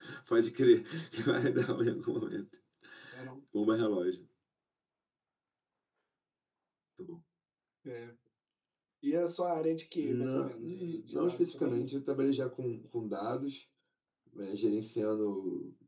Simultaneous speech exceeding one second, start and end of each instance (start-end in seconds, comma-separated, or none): 10.0-11.8